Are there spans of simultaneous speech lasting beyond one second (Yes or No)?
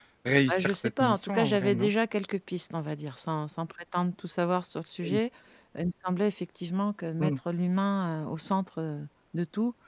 Yes